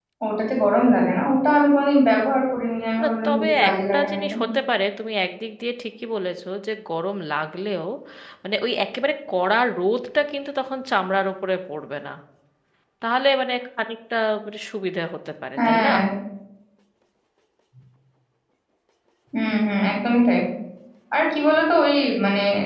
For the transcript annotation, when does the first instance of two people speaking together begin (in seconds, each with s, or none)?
3.0 s